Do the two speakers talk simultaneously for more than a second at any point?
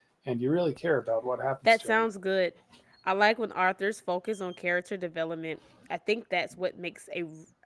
No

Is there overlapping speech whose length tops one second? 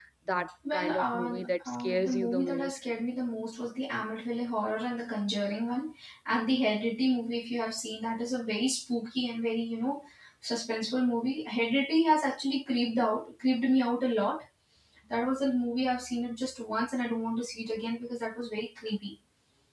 Yes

